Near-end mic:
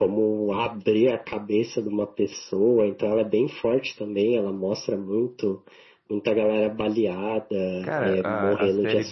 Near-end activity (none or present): present